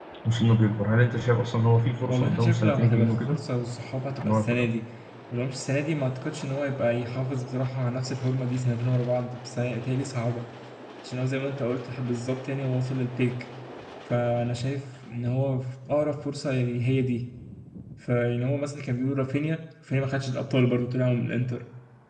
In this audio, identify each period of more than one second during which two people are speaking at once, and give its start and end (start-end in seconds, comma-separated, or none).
2.1-3.4